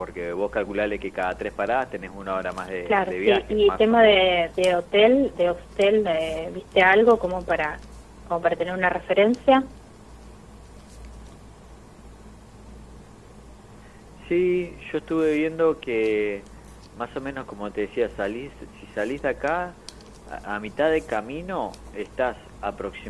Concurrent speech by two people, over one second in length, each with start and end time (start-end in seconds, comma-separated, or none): 2.9-4.3